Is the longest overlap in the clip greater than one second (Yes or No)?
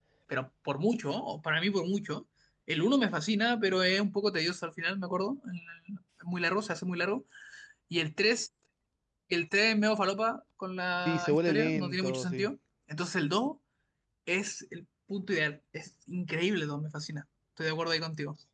Yes